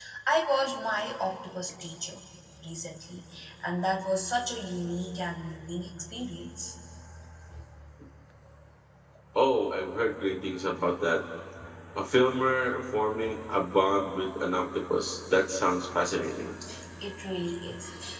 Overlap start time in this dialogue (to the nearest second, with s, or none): none